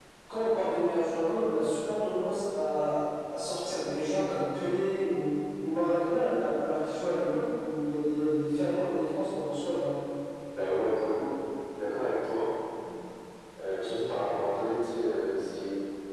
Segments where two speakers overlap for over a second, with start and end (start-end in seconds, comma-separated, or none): none